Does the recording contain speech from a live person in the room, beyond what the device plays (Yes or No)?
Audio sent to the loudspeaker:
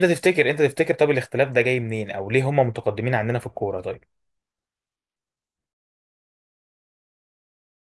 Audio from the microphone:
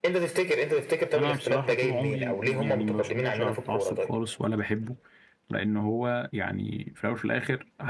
Yes